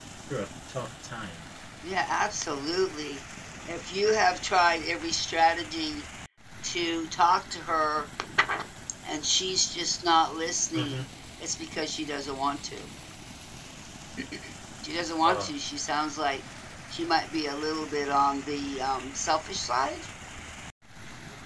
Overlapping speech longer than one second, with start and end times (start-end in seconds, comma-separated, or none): none